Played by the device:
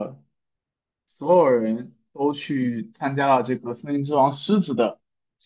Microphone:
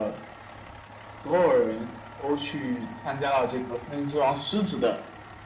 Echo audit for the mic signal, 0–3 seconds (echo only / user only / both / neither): echo only